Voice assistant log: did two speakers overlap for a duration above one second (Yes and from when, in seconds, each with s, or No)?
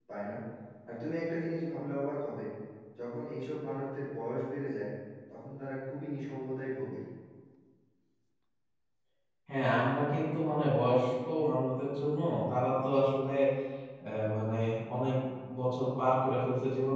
No